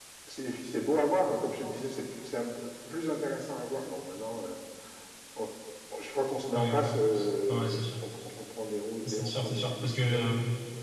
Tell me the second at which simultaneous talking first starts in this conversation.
6.5 s

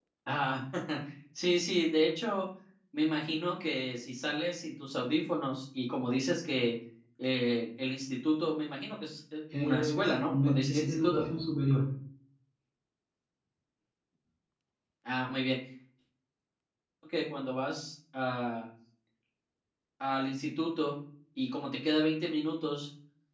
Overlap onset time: 9.5 s

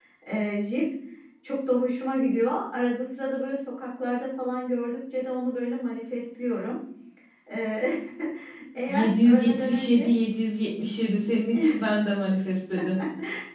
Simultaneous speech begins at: 8.9 s

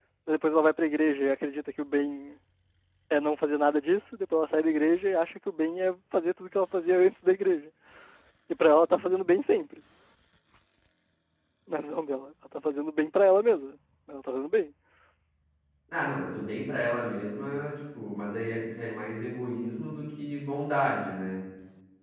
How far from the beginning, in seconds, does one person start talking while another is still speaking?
none

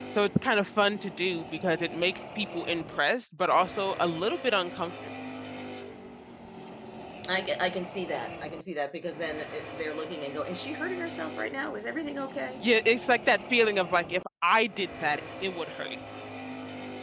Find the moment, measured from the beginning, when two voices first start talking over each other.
none

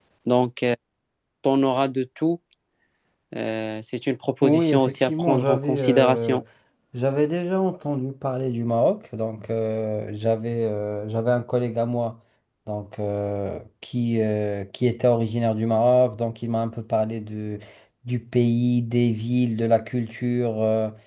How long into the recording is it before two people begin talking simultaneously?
4.4 s

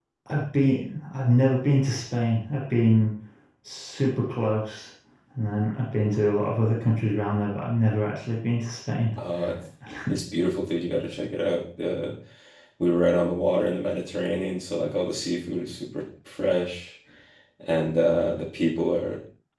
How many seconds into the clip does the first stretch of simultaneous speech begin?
none

